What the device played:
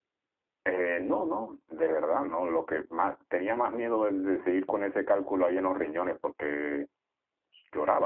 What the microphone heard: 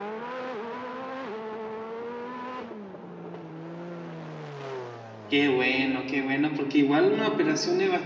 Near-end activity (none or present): present